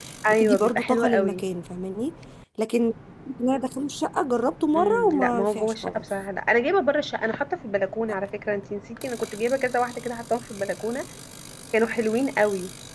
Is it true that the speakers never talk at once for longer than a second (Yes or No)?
No